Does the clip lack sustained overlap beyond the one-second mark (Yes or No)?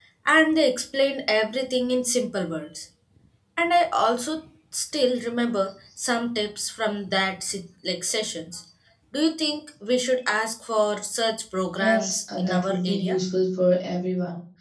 No